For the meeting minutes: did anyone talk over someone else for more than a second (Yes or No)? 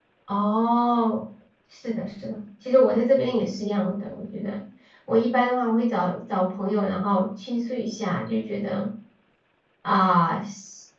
No